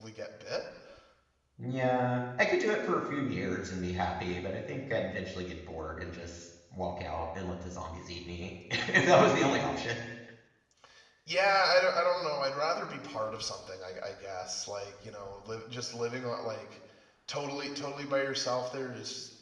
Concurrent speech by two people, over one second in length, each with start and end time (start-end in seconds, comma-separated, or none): none